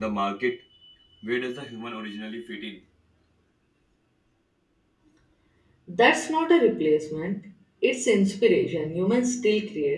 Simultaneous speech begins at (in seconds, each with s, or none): none